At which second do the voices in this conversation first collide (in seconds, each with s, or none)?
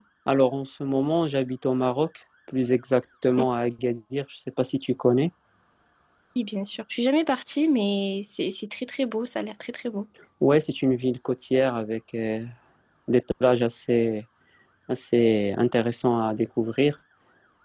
none